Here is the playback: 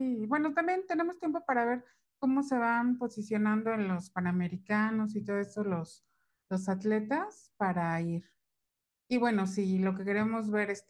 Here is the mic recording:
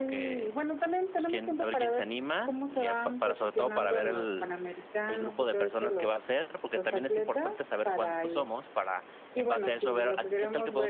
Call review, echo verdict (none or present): present